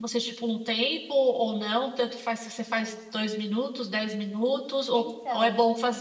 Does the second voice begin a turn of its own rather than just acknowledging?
No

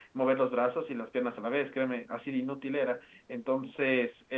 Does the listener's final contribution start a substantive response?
No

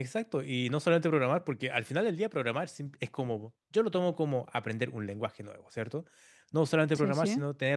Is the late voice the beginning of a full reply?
No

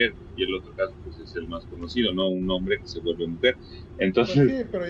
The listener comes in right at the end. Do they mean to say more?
Yes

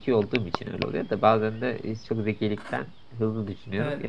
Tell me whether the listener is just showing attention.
No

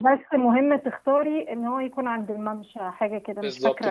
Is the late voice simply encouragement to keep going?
No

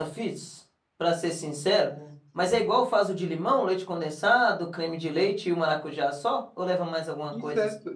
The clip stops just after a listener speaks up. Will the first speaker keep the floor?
No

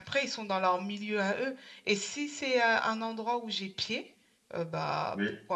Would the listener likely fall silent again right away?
Yes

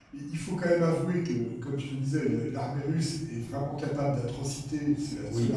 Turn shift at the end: No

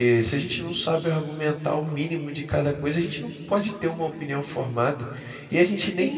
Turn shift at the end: No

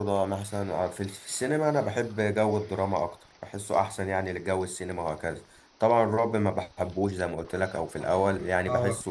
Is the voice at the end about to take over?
No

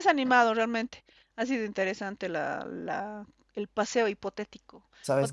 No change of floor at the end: Yes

